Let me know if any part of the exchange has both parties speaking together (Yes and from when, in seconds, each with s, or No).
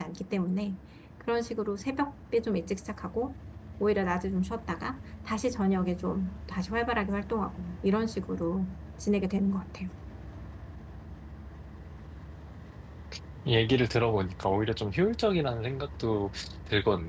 No